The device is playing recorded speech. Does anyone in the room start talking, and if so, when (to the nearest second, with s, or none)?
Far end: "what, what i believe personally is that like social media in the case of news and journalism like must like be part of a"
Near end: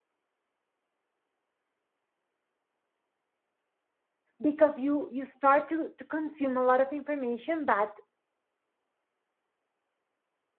4 s